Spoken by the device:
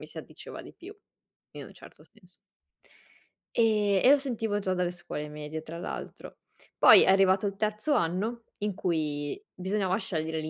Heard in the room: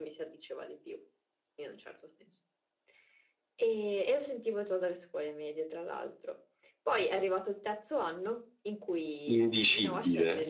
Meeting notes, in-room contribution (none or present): present